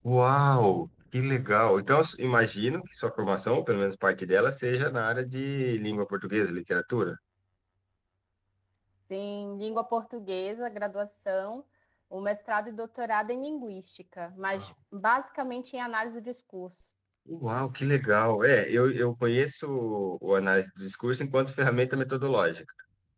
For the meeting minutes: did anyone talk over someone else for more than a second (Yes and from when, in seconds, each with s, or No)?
No